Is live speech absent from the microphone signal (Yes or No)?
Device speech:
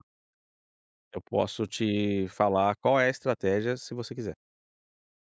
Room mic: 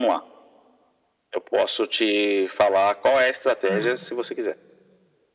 No